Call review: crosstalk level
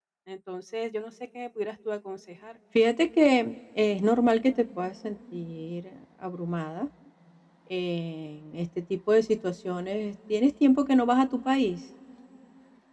none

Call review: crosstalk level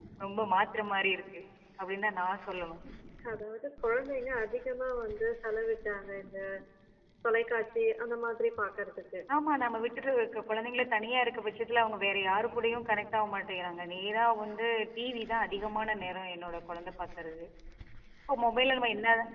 none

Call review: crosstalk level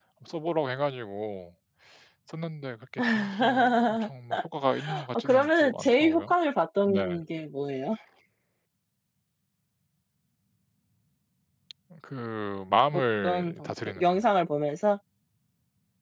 present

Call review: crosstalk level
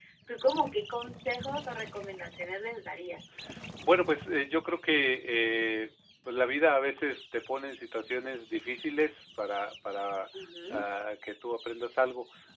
none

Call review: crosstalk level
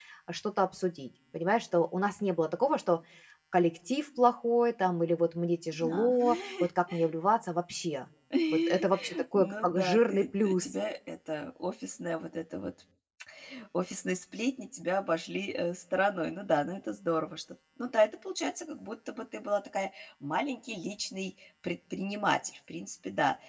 present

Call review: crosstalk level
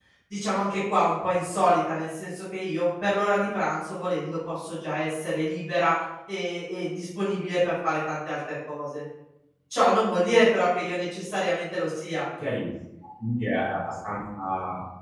none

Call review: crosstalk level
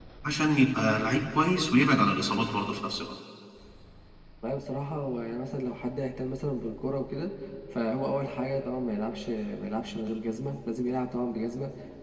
none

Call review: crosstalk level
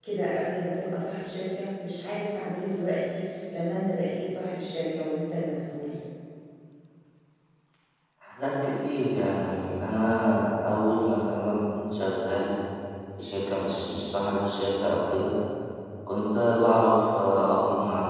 none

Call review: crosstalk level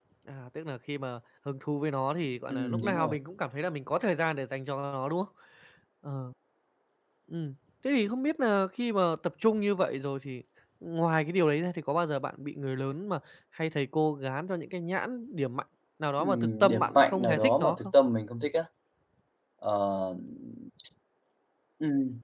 present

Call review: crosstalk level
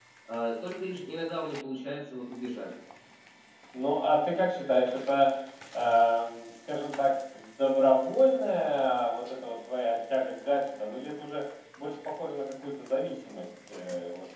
none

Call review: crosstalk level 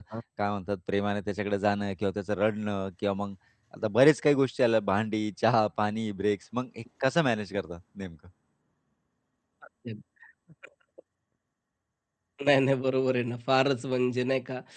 none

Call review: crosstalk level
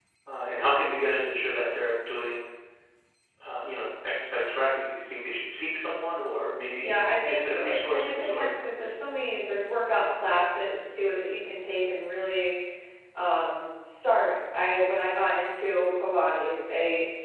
present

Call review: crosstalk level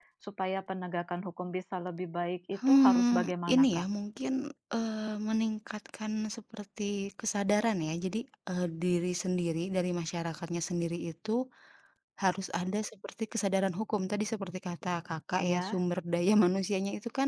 present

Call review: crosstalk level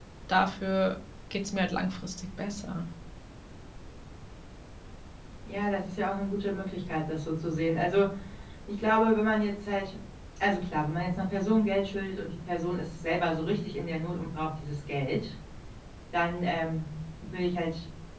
none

